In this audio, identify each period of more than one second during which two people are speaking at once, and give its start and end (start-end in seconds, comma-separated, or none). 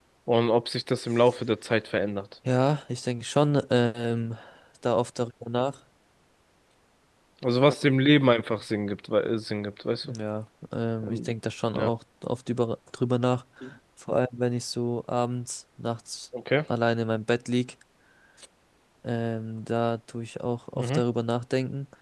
none